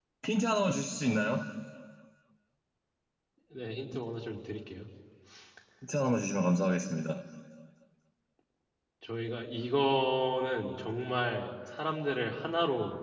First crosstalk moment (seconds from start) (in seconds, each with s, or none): none